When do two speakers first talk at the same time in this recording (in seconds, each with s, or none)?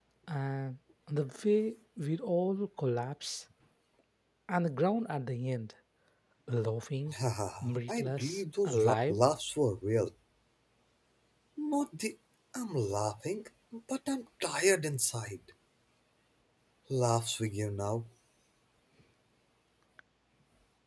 7.6 s